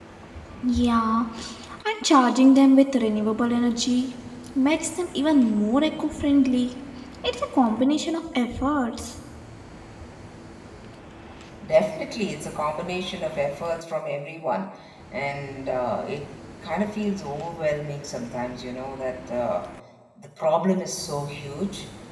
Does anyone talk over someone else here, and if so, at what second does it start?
none

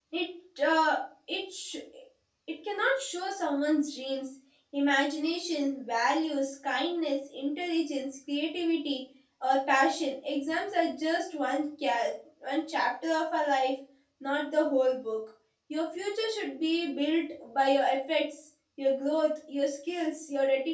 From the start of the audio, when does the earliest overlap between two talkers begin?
none

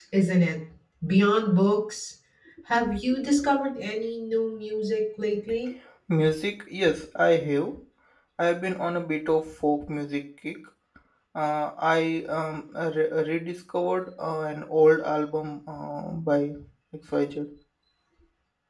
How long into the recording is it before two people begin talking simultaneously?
none

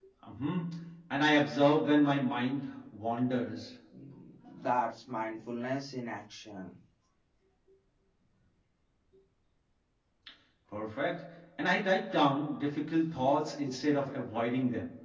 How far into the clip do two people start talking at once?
none

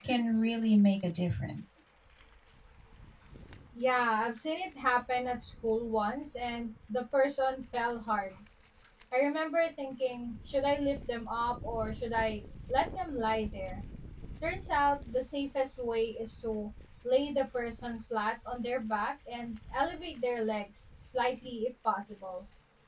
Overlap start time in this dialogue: none

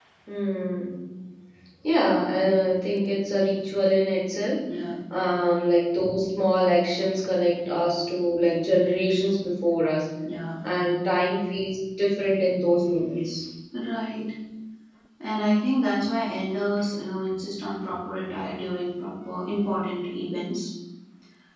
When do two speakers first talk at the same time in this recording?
none

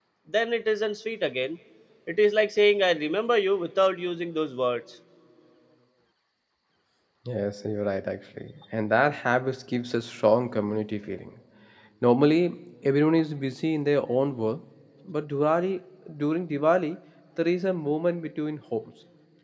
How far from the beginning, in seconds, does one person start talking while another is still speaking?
none

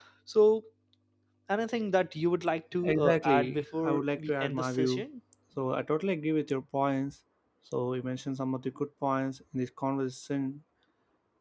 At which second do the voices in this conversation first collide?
2.8 s

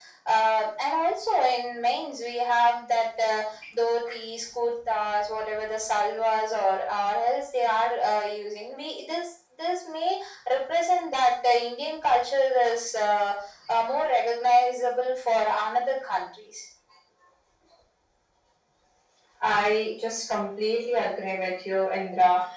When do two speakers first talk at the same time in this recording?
none

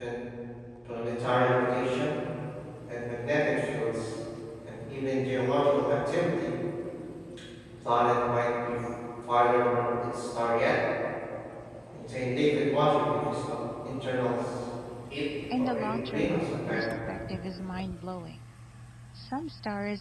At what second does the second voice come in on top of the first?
15.6 s

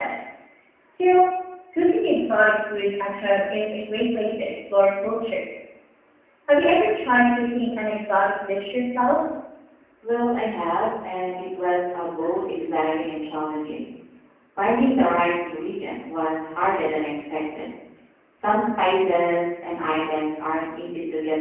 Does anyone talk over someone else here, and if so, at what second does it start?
none

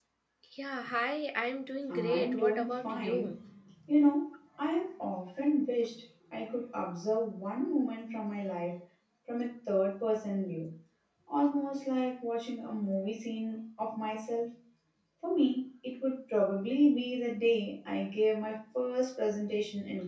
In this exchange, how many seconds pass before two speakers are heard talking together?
1.9 s

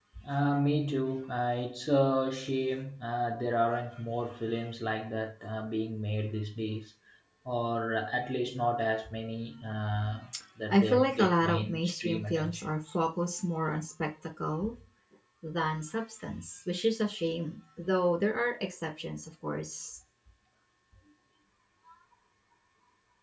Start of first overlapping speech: 10.7 s

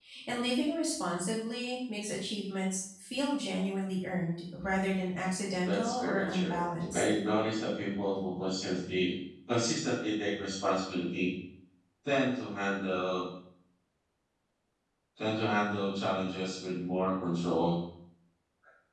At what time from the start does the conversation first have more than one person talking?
5.7 s

